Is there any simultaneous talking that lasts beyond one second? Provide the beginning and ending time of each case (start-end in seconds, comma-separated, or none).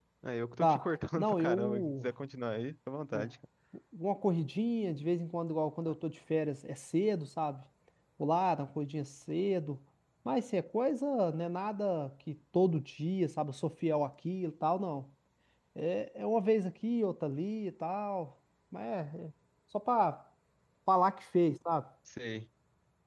0.6-2.1